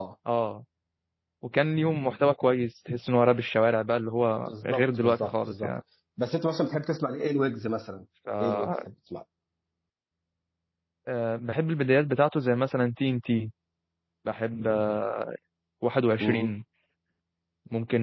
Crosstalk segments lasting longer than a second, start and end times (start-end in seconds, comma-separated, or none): 4.4-5.7